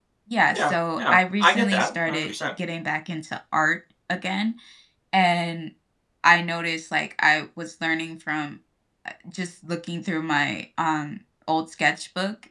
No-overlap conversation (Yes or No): No